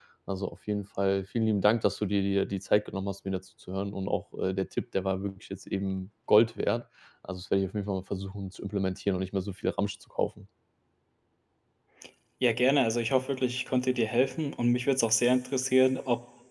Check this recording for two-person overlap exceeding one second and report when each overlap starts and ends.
none

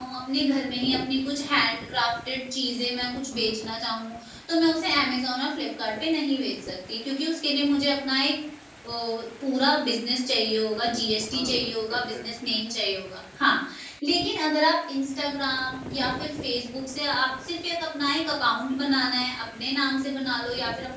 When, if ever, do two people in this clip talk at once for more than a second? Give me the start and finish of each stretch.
11.4-12.6

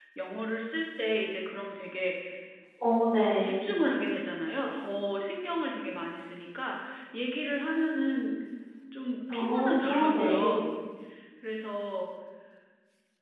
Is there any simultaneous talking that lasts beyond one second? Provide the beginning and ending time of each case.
9.3-10.6

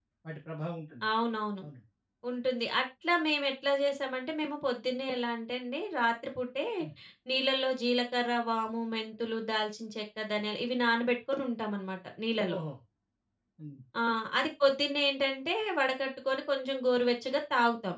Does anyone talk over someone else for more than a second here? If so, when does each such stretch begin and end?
none

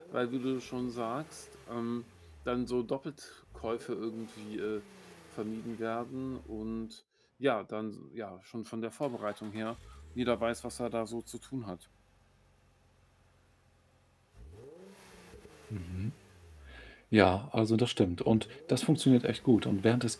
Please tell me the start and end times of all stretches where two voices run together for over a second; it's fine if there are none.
none

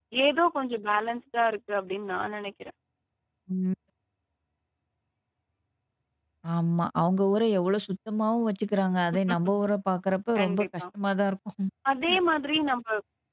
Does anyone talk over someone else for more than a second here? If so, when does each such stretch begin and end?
none

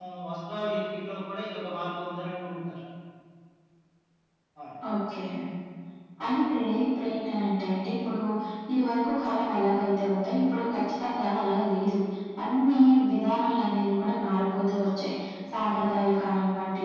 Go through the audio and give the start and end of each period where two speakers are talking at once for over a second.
none

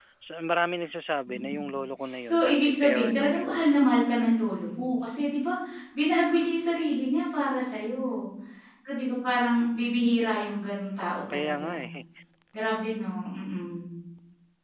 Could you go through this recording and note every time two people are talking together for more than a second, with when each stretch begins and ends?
2.2-3.9

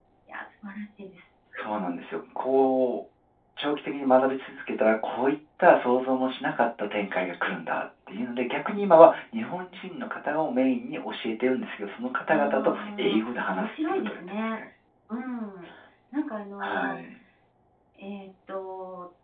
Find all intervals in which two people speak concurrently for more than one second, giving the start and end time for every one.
12.3-14.6

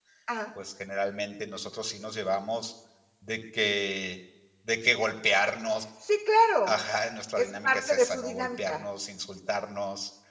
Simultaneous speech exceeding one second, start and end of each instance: 7.4-8.8

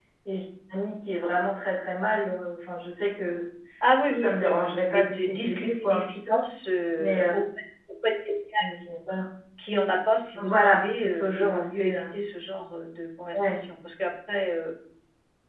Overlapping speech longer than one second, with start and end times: 4.1-6.4, 10.4-12.1

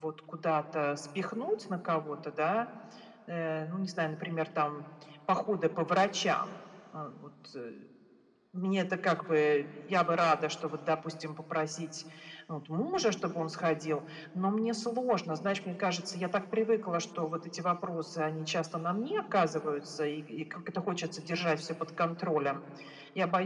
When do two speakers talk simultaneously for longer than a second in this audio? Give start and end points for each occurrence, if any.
none

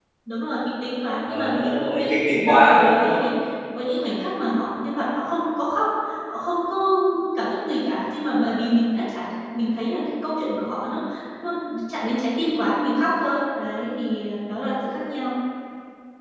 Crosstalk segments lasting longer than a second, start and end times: 1.3-3.2

